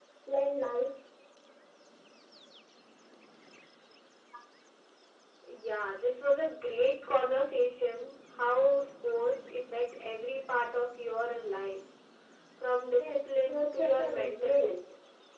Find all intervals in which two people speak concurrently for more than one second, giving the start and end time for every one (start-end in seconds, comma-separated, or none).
13.0-14.7